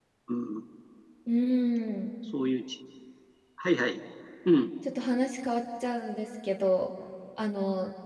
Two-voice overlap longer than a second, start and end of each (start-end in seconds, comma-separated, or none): none